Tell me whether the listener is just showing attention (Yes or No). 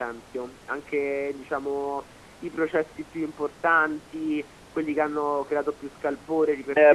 No